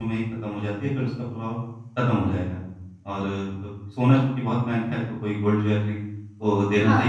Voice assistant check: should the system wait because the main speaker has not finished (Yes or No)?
Yes